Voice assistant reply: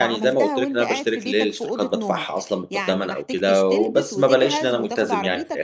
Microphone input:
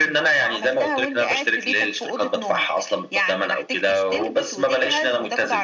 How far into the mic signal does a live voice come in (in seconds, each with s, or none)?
none